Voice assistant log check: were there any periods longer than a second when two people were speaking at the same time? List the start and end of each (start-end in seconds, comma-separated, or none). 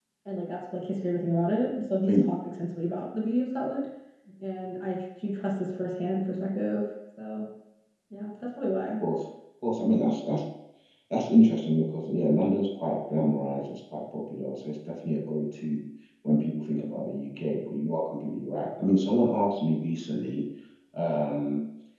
none